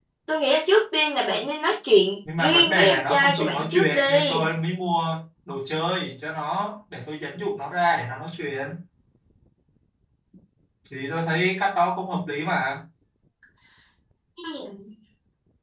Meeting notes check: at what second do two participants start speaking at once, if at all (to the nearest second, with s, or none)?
2 s